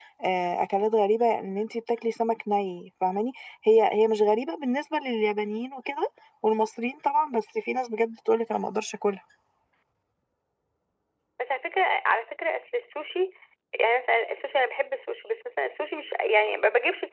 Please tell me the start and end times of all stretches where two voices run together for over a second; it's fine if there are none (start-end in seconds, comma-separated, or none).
none